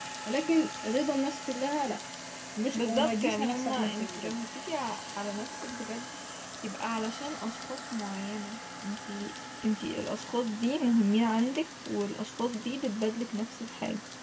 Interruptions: present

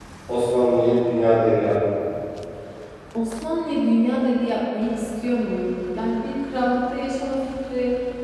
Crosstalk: none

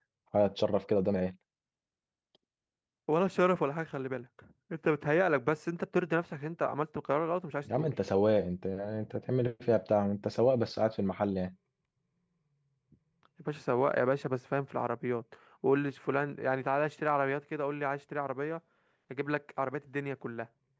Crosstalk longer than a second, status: none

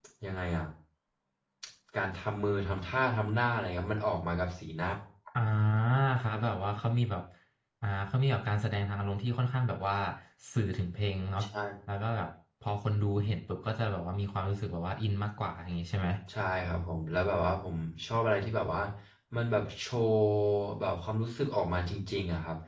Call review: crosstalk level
none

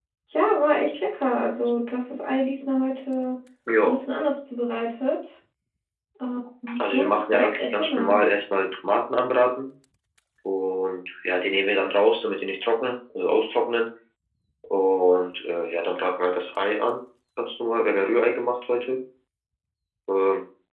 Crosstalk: present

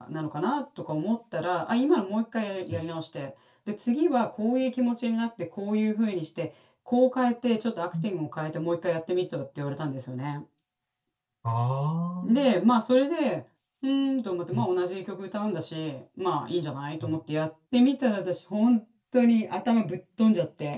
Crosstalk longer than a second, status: none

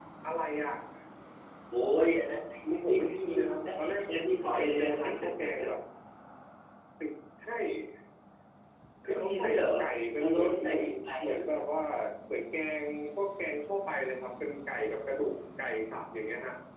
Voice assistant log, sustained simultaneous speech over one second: present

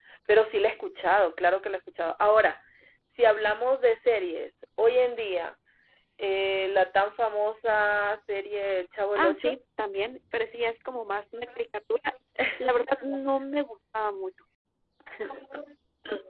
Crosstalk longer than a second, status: none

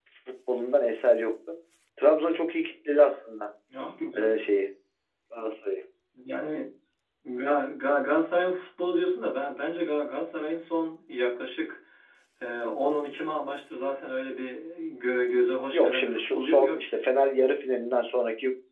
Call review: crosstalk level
present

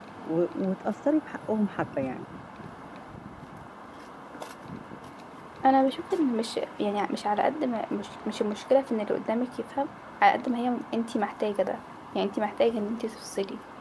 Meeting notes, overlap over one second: none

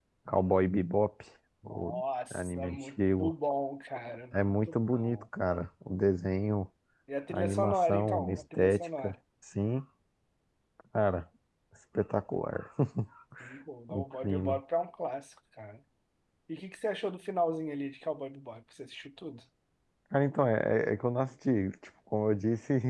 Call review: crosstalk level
present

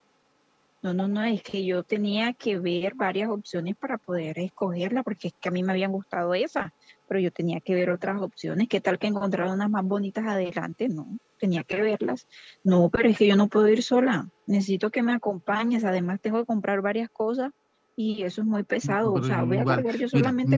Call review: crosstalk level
present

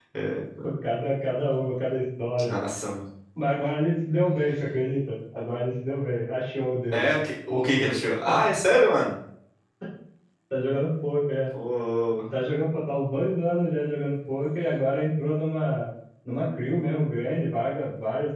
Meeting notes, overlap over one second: none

